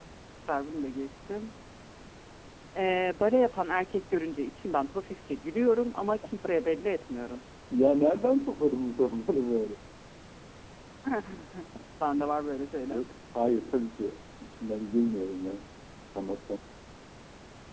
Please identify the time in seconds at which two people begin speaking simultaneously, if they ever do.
none

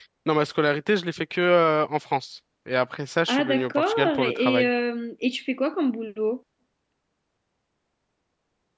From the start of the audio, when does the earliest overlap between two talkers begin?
3.3 s

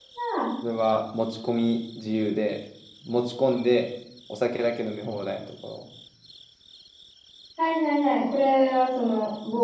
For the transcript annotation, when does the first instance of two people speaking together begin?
none

